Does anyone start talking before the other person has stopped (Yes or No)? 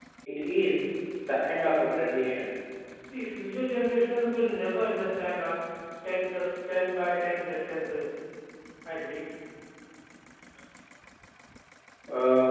No